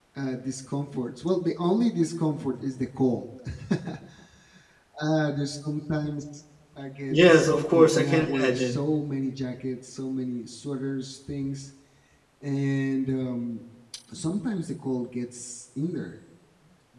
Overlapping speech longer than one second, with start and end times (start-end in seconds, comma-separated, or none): 7.1-8.8